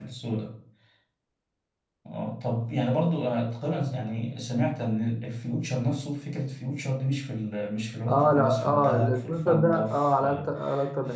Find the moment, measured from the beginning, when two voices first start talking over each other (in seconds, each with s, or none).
8.1 s